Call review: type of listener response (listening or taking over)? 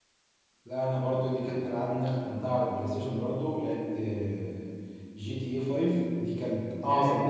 listening